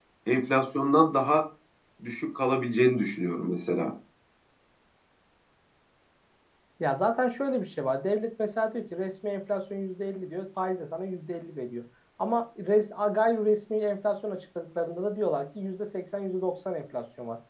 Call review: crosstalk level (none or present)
none